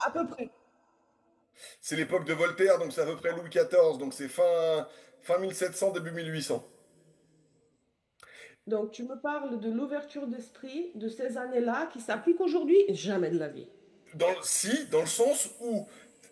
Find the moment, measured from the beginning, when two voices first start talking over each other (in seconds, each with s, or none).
none